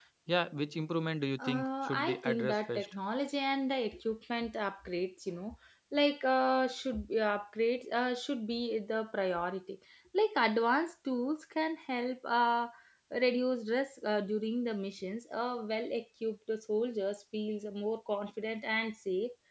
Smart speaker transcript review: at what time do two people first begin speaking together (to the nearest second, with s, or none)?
1 s